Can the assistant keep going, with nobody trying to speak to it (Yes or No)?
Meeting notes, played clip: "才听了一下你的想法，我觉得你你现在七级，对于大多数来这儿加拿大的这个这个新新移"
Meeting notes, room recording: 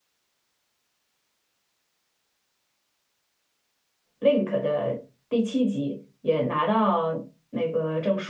No